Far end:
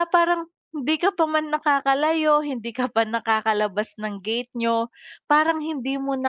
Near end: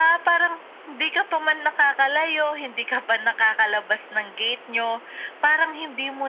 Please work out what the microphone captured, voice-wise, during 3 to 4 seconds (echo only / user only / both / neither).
echo only